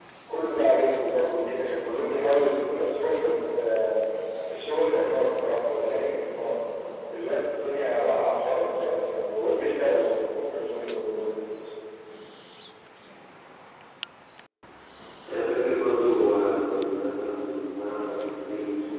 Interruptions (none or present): none